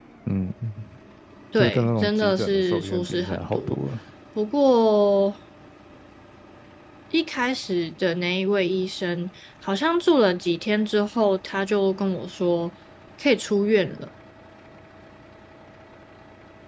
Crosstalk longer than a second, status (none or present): present